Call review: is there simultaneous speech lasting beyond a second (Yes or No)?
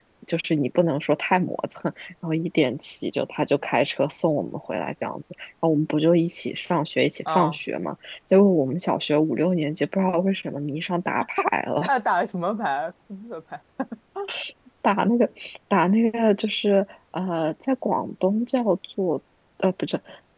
No